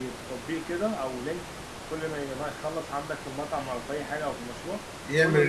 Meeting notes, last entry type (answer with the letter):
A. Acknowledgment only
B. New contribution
A